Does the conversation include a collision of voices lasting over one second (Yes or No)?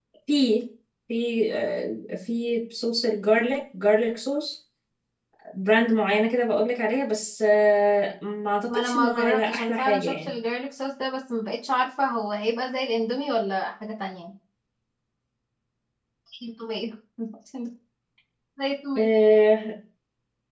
Yes